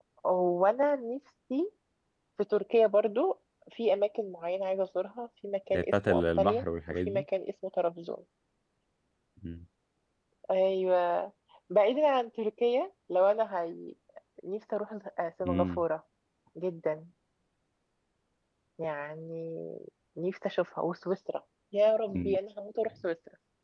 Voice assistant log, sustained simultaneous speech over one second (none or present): present